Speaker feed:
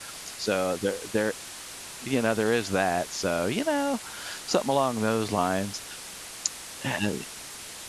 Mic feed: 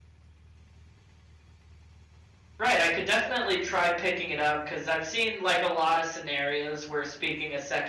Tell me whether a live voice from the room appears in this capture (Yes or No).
Yes